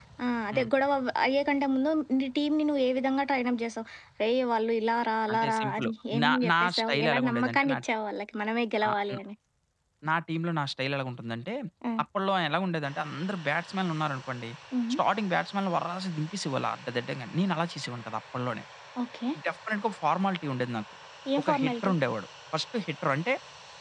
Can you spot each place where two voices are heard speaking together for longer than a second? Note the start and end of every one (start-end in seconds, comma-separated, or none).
5.3-7.8